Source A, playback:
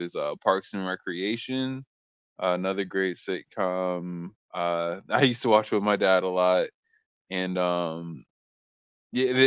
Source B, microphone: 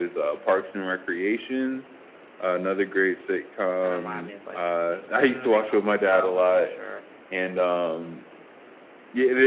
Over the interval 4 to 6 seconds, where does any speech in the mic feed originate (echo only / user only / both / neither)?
both